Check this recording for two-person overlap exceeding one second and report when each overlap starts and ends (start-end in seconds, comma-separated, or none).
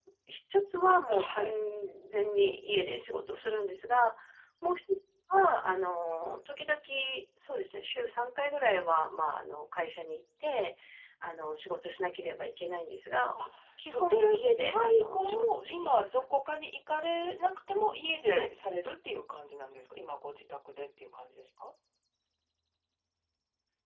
14.7-16.7